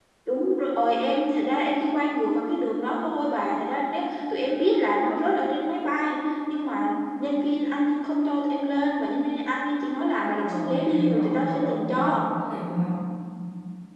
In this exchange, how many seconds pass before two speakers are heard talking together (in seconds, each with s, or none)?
10.4 s